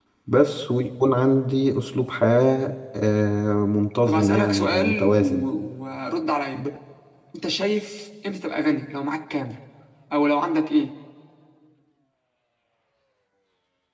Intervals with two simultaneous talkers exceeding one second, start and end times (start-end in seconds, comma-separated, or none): 4.1-5.4